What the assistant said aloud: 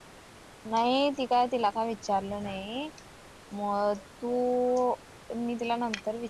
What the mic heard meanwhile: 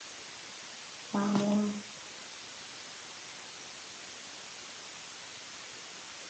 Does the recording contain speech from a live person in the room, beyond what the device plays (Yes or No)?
Yes